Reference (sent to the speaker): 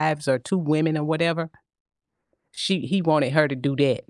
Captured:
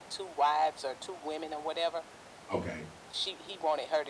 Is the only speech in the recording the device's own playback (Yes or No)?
No